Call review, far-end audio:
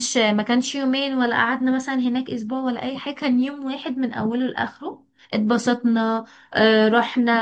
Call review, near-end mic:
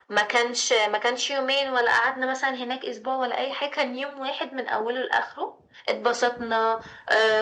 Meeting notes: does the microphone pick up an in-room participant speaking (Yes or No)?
No